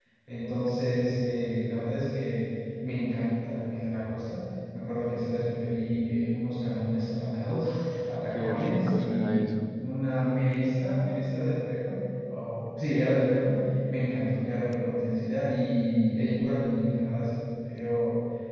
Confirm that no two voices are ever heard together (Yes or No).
No